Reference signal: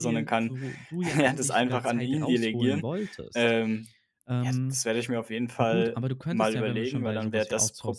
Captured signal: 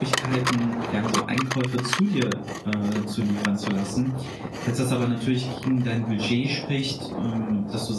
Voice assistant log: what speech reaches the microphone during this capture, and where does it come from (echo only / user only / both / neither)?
user only